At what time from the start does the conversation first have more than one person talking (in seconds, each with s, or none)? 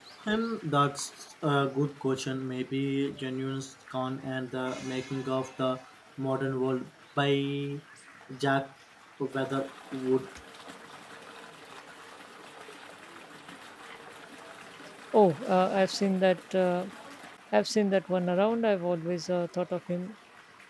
none